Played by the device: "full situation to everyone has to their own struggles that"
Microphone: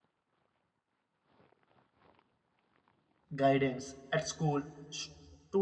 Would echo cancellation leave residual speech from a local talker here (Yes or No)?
Yes